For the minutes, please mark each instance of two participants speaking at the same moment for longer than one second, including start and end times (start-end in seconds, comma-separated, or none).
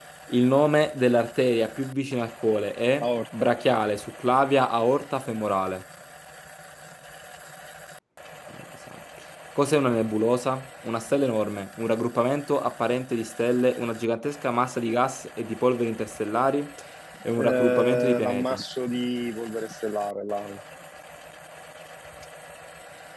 17.4-18.6